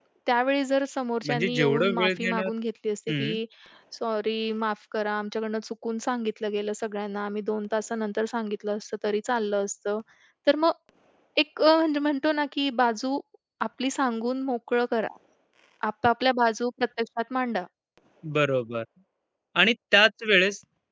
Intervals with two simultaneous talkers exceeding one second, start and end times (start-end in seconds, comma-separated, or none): 1.2-2.5